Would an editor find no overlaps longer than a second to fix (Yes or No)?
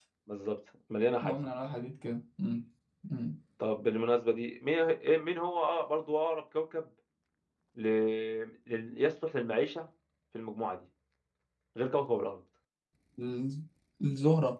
Yes